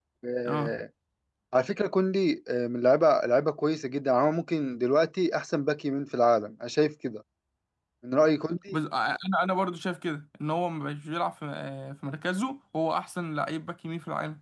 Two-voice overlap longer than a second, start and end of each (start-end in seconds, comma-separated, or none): none